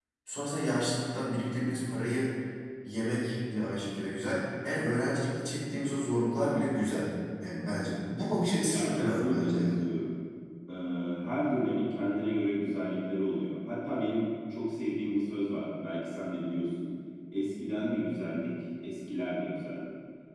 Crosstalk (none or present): present